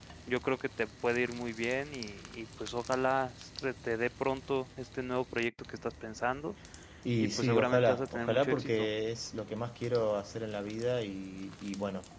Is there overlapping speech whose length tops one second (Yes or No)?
Yes